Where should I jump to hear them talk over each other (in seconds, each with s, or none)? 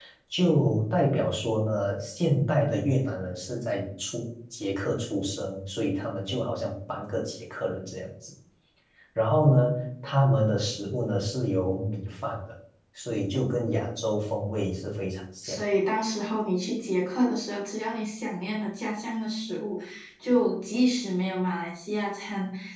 none